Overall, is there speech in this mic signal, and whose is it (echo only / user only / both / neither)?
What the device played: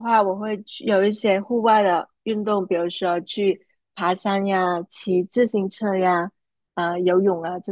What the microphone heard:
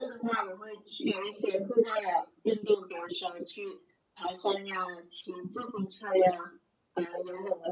echo only